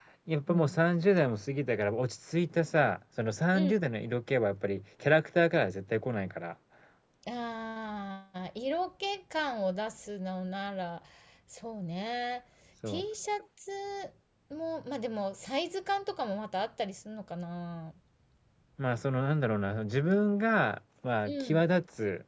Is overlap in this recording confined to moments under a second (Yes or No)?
Yes